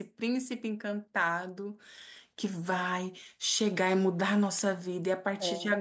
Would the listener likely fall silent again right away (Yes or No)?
Yes